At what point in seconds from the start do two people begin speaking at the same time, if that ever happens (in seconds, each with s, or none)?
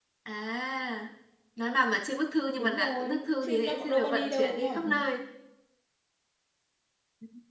2.6 s